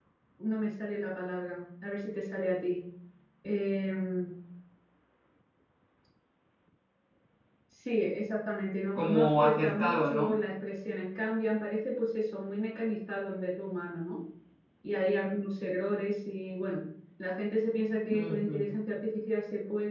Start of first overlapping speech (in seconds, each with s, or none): 8.9 s